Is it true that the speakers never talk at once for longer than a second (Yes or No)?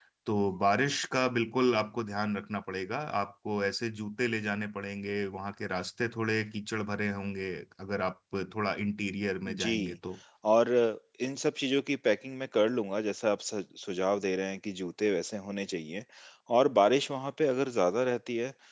Yes